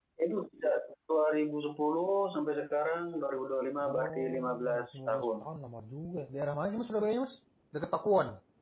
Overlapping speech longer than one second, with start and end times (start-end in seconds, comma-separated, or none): 3.9-5.2